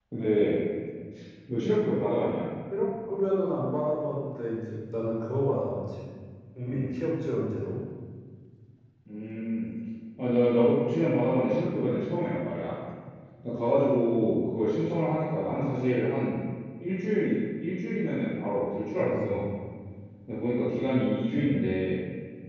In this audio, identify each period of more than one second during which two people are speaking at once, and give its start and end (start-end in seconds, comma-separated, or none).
none